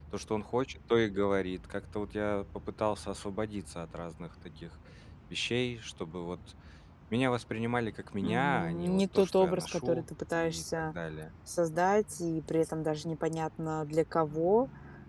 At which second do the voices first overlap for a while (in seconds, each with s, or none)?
8.2 s